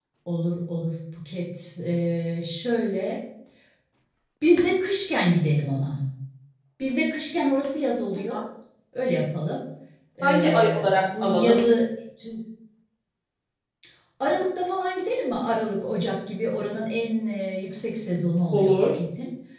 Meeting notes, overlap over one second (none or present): present